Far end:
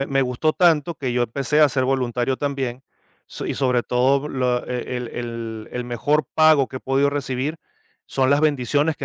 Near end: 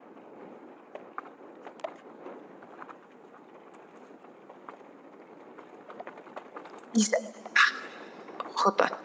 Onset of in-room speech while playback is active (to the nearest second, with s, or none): 7 s